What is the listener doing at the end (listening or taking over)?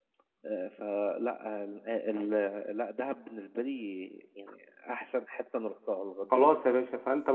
taking over